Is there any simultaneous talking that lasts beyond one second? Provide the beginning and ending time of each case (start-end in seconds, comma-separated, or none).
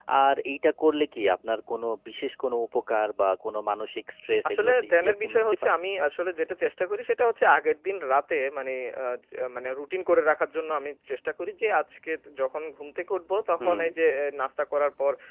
4.5-5.7